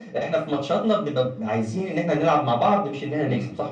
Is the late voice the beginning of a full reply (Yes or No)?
Yes